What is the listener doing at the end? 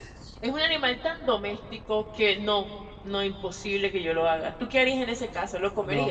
taking over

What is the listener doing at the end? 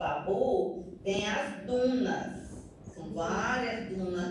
listening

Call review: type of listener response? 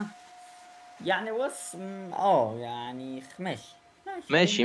taking over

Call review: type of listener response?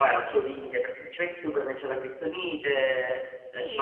taking over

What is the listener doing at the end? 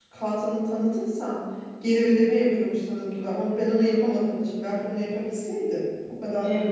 listening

